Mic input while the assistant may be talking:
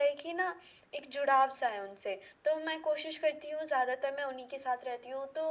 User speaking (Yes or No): No